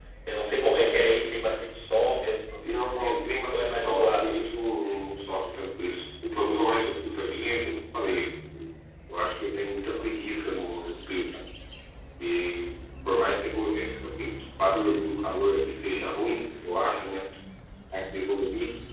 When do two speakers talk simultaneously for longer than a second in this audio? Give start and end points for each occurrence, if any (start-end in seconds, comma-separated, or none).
2.6-4.3